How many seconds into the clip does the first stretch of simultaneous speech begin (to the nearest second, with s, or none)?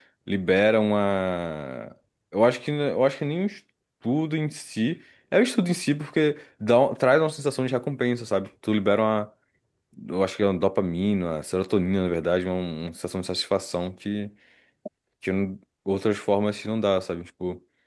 none